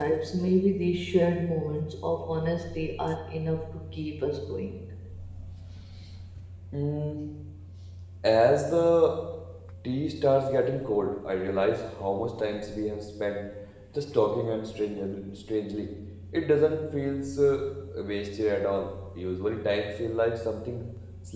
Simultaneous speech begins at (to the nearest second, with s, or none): none